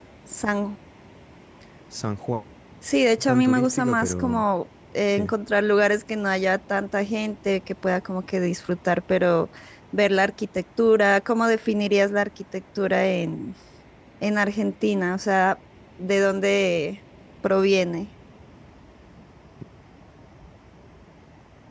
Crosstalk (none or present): present